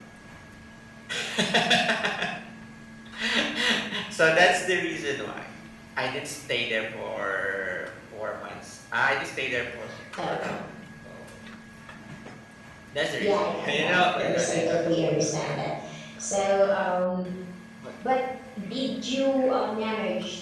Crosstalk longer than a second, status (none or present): present